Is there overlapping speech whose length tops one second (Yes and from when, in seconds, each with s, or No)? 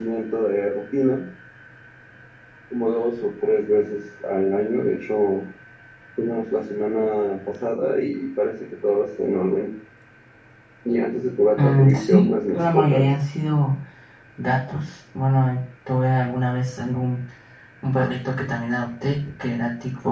Yes, from 11.6 s